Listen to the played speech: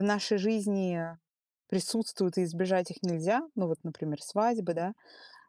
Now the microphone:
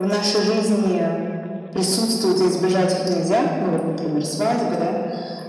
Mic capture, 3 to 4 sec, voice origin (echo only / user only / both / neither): echo only